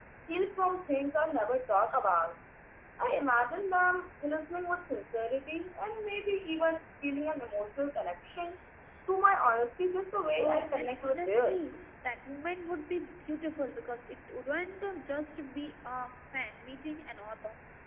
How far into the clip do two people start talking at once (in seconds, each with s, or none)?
10.4 s